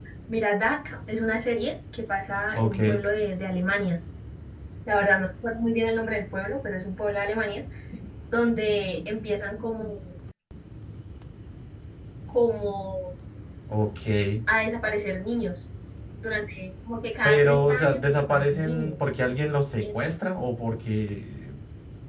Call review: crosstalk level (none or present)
present